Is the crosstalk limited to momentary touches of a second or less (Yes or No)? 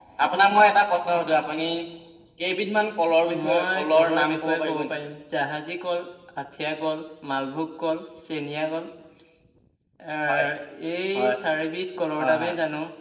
No